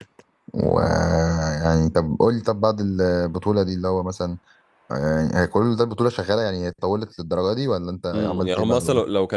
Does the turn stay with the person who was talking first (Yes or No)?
No